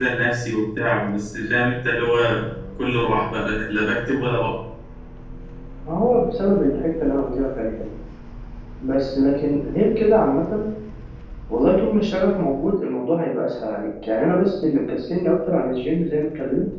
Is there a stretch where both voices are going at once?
No

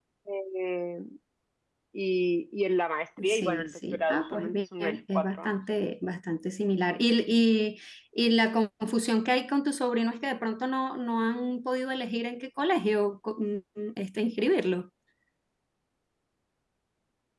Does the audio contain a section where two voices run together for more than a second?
Yes, from 3.2 s

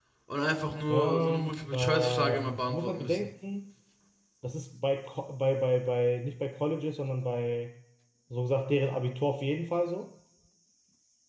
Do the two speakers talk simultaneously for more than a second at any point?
Yes, from 0.9 s

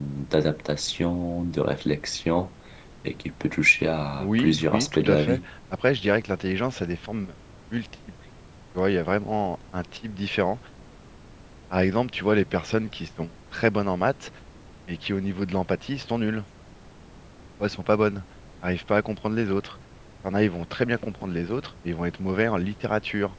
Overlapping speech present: Yes, from 4.1 s

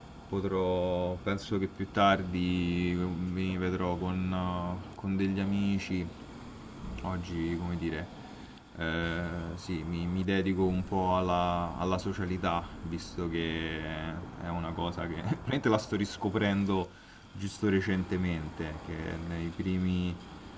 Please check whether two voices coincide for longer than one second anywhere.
No

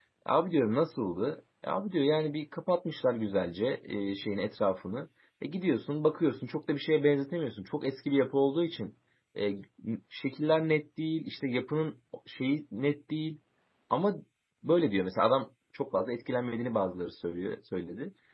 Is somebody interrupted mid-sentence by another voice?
No

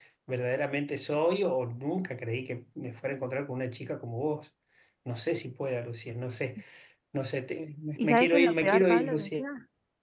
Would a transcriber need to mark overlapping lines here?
Yes, from 8.0 s

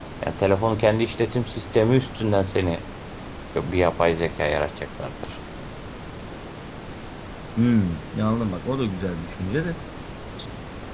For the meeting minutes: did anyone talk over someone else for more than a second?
No

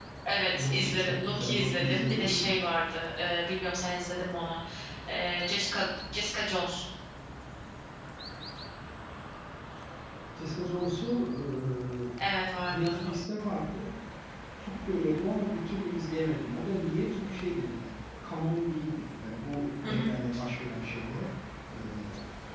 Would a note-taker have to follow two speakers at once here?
Yes, from 0.5 s

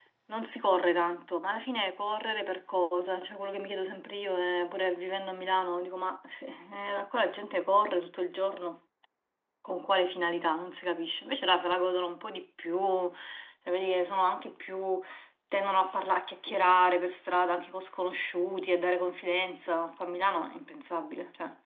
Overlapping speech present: No

